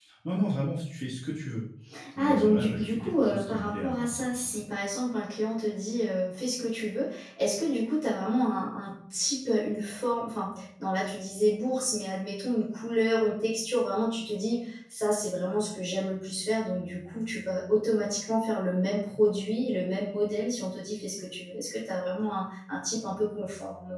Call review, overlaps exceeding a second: present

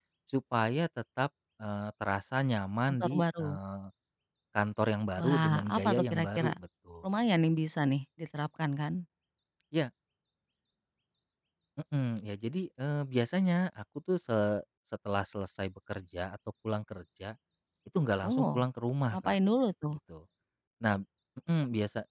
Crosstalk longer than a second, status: present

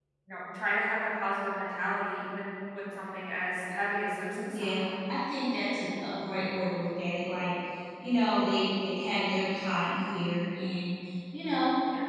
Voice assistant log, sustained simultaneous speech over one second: none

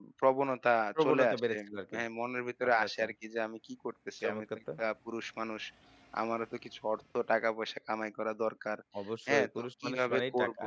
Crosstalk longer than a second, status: present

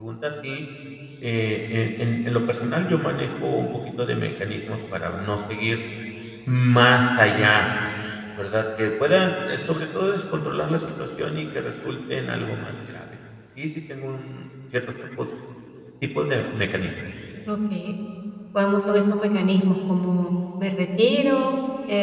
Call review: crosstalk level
none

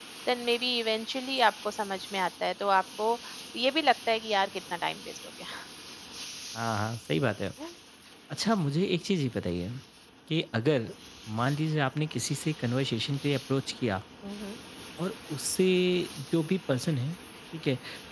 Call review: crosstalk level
none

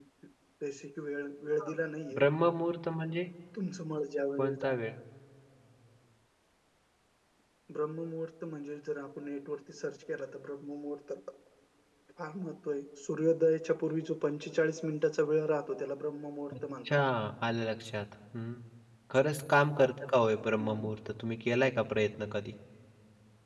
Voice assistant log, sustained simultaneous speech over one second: none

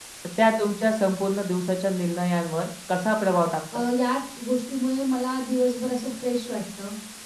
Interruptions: none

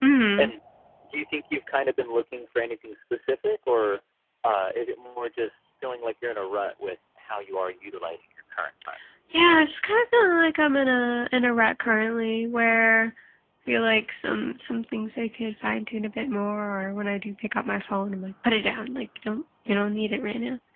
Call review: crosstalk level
none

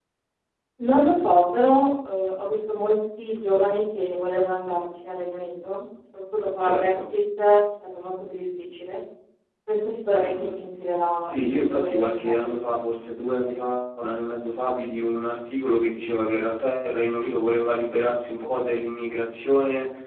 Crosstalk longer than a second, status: present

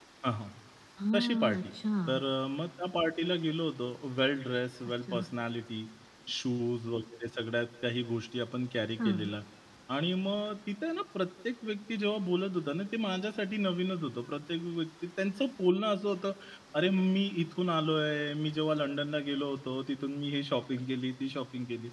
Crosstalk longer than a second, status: none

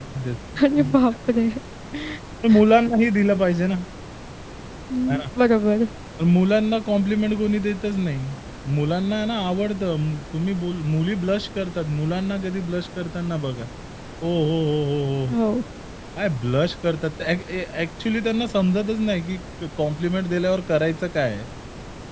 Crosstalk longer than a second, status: none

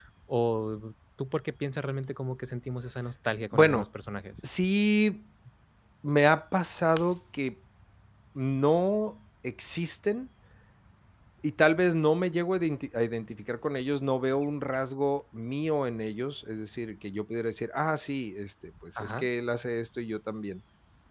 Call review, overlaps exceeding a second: none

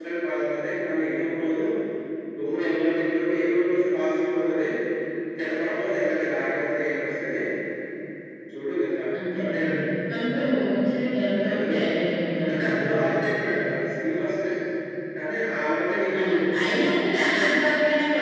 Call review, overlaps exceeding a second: none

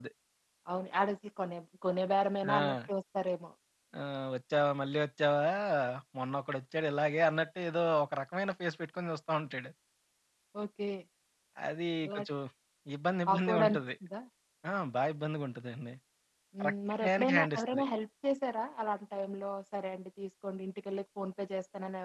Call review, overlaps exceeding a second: present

